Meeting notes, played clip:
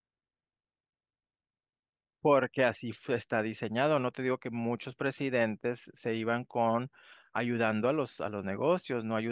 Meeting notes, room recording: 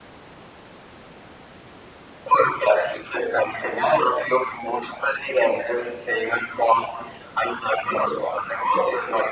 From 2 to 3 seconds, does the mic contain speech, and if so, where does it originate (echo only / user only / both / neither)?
echo only